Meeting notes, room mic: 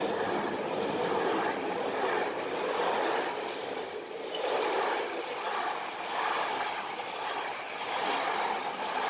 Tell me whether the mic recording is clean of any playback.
Yes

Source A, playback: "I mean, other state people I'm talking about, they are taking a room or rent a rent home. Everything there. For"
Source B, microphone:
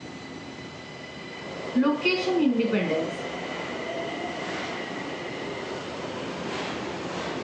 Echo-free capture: Yes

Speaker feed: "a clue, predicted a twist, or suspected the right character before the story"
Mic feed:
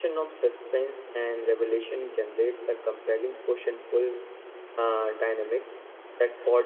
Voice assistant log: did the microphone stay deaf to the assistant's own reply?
Yes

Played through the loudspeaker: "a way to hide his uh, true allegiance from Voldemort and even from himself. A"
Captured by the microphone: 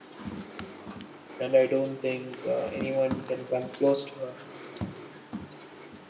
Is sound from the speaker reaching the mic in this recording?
No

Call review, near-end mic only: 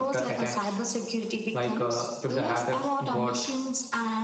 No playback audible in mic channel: No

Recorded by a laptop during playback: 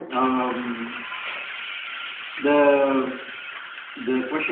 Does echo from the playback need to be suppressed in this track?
Yes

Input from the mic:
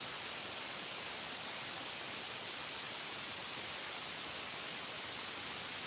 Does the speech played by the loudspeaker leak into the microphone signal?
No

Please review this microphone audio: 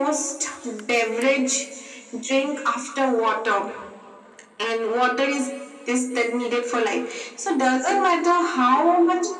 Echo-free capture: No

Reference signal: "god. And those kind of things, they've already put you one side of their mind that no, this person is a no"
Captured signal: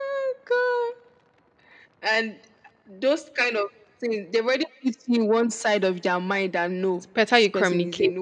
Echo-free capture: No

